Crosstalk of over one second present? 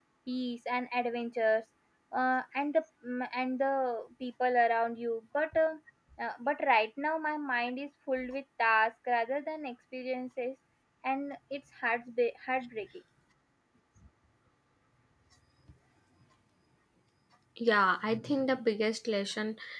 No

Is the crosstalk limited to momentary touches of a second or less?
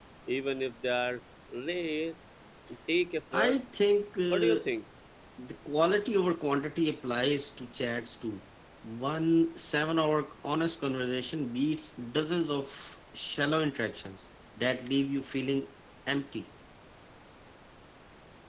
Yes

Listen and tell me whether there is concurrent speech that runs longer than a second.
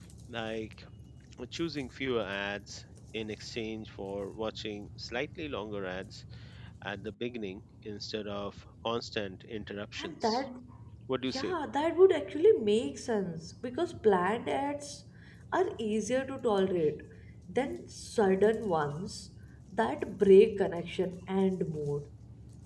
No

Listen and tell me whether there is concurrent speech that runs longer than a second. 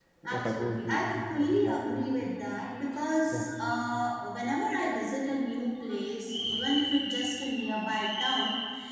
Yes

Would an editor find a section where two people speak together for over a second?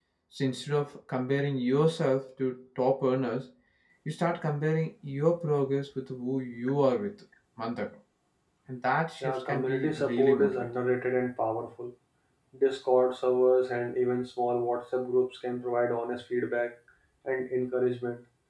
Yes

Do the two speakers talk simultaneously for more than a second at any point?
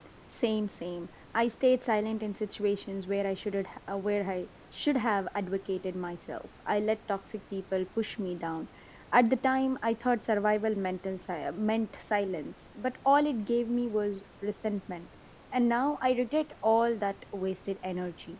No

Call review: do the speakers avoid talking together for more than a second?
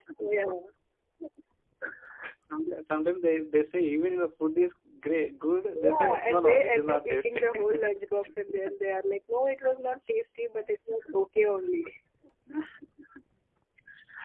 No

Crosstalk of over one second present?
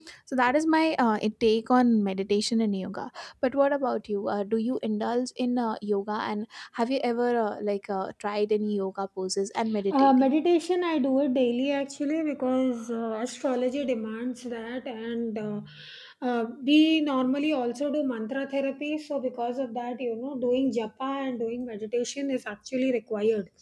No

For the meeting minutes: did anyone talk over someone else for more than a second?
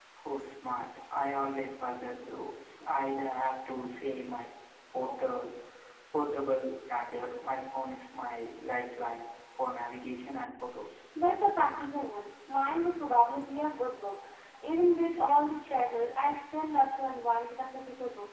No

